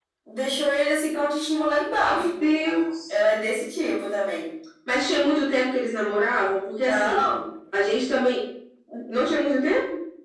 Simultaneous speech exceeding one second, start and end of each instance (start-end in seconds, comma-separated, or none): none